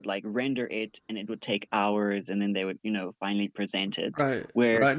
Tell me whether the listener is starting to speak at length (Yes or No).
Yes